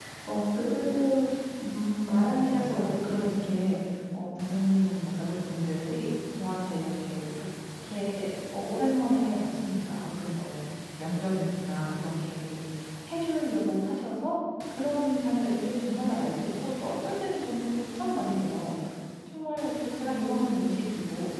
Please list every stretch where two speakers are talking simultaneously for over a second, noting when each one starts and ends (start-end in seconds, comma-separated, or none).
2.2-3.6